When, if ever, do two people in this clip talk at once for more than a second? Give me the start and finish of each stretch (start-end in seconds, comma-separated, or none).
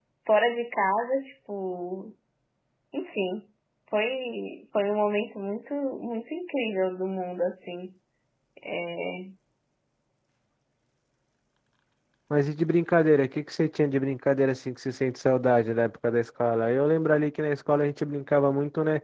none